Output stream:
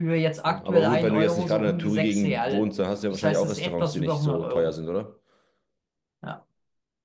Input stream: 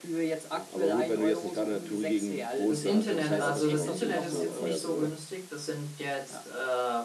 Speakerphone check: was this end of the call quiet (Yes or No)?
No